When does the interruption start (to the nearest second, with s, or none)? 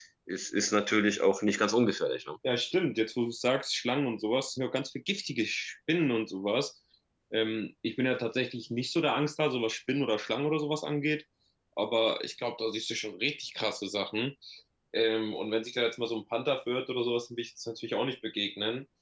none